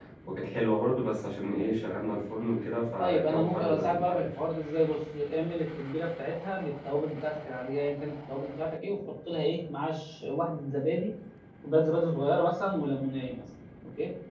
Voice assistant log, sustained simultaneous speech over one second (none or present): present